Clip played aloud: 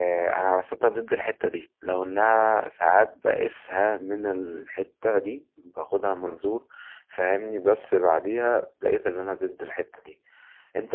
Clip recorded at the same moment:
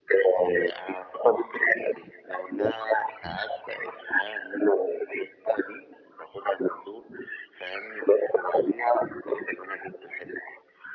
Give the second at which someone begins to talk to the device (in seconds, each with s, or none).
none